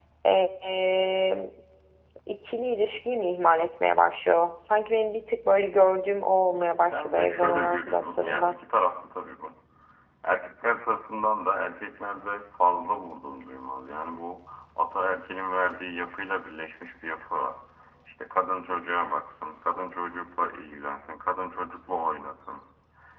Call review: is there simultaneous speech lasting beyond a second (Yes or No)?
Yes